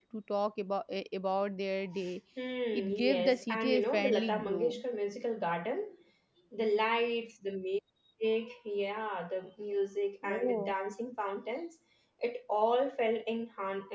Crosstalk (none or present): present